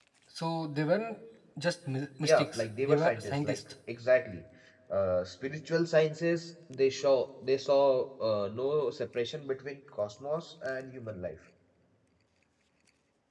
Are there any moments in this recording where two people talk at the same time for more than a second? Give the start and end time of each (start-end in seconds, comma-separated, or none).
2.2-3.6